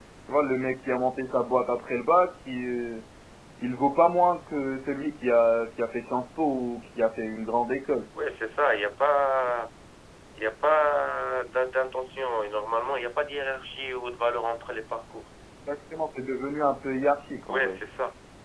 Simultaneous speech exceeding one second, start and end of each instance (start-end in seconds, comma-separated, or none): none